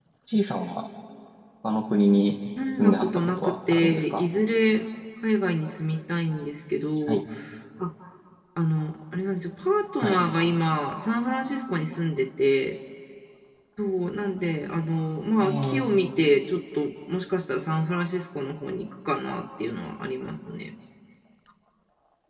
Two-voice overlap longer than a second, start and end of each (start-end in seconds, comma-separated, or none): 2.8-4.2